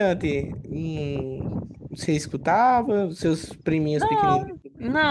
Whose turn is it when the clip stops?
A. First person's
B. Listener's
B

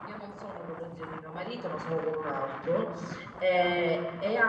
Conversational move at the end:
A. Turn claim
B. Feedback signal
B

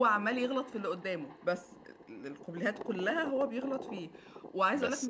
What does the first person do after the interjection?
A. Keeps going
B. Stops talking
A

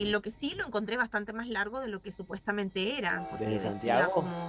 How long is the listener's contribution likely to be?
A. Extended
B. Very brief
B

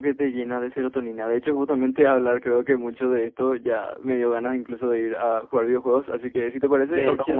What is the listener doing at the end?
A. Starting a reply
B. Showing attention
A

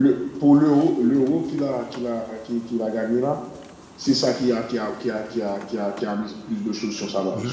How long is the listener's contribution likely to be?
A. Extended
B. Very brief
A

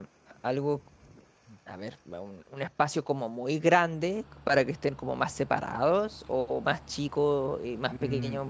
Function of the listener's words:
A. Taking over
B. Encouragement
A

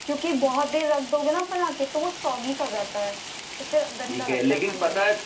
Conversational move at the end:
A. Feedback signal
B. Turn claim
B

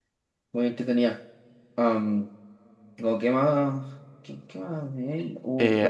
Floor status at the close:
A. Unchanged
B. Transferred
B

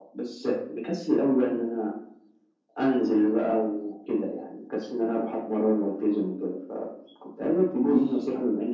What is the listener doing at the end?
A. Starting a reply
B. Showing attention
B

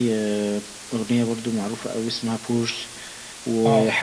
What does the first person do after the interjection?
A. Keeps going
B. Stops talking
A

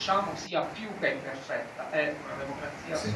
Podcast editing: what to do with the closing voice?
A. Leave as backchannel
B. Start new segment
A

